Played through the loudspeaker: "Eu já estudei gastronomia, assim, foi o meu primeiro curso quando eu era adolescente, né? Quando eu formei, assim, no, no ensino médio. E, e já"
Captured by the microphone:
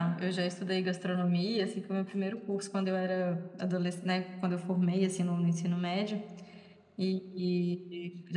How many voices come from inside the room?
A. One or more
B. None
B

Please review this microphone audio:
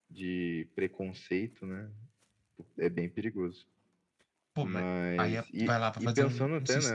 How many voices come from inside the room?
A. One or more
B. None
A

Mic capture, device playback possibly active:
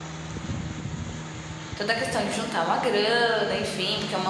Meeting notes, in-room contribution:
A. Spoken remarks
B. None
A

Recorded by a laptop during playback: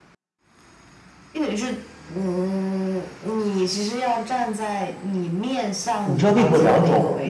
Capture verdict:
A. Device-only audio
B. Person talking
B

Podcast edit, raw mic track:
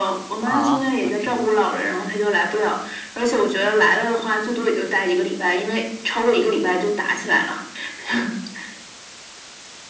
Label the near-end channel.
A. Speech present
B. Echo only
A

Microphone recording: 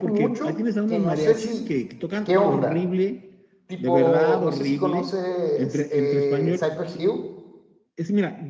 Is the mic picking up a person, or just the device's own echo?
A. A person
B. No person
A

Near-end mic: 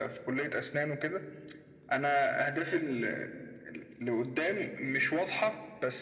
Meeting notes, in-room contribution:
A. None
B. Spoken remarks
A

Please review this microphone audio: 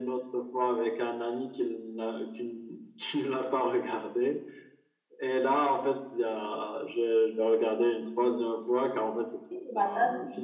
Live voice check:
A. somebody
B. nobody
A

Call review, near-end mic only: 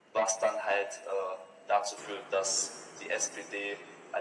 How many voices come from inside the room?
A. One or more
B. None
B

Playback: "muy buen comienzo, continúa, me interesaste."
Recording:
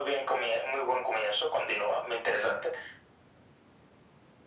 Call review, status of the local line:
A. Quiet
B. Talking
A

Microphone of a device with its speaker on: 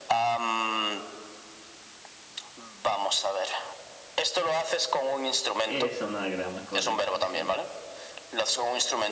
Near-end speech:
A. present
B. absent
A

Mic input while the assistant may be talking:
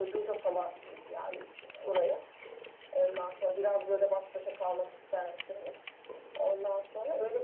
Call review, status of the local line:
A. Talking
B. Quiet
B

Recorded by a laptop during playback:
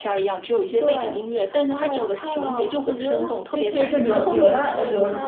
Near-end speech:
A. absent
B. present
B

